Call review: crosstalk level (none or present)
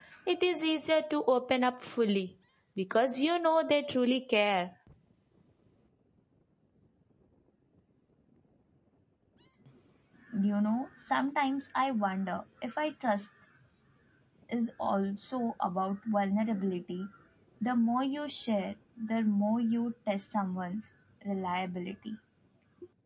none